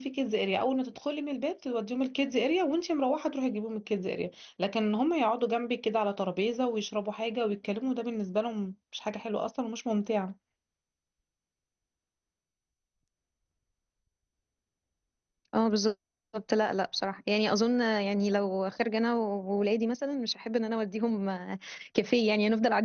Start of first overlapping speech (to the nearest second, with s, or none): none